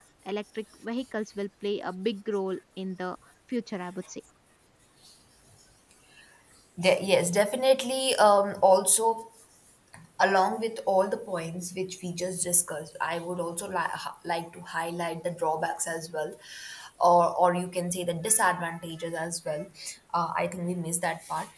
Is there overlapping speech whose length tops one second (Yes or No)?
No